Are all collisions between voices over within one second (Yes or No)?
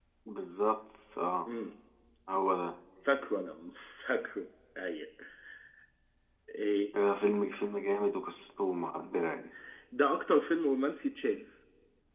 Yes